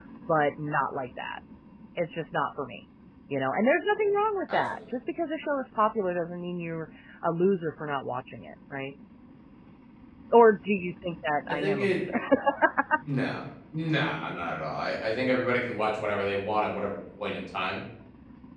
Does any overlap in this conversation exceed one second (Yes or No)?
No